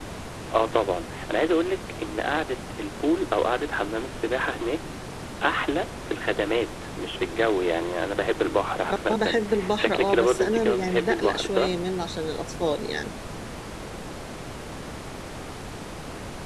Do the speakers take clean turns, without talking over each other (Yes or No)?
No